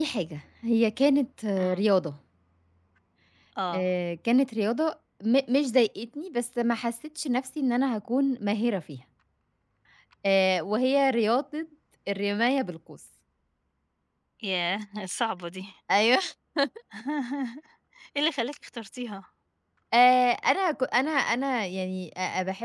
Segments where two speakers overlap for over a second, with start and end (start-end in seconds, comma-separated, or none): none